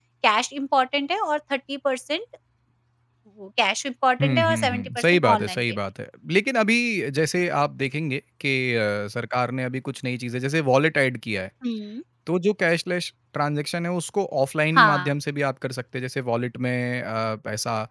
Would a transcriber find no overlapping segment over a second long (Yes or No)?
No